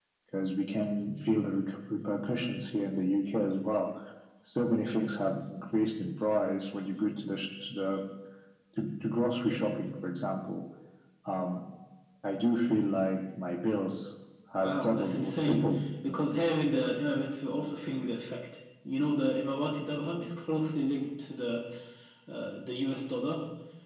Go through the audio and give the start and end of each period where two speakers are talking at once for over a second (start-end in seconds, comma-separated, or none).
14.6-16.2